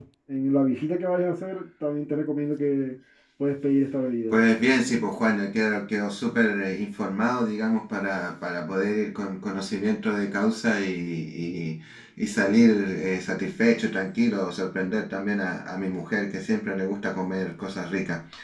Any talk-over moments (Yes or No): No